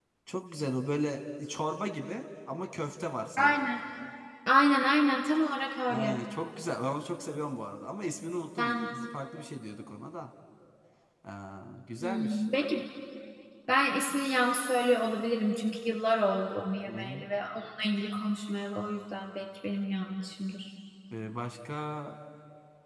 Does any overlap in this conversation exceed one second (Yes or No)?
No